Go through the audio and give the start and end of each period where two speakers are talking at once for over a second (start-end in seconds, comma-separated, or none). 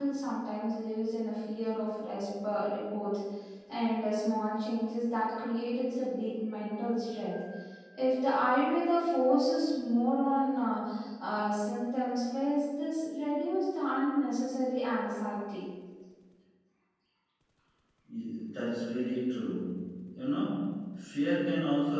none